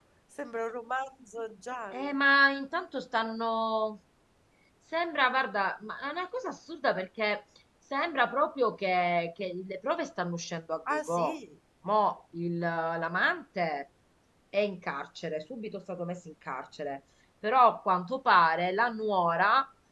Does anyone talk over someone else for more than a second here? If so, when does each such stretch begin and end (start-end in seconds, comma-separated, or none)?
none